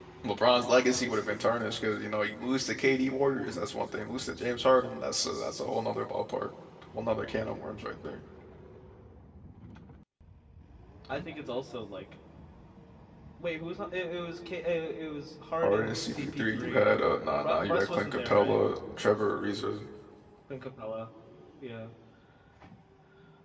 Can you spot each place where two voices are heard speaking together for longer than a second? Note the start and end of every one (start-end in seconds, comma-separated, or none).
15.6-16.9, 17.4-18.6